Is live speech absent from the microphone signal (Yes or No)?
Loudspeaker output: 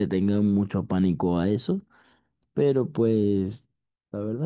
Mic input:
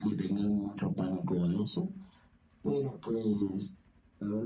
Yes